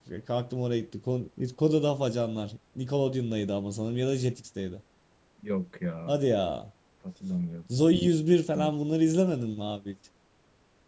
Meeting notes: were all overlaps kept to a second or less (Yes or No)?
Yes